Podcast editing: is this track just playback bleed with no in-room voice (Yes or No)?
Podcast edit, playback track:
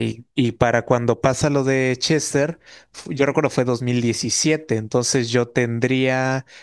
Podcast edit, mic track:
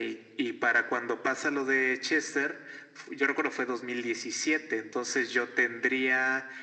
Yes